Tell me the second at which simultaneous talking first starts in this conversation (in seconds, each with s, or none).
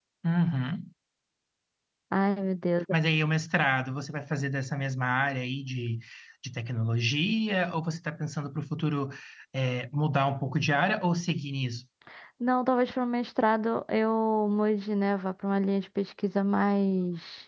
none